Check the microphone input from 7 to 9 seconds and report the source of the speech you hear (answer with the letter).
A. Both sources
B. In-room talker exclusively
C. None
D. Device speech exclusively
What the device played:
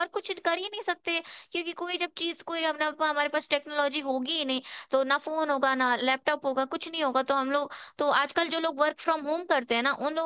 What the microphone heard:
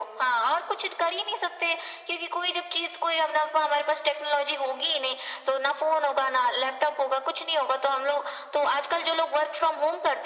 D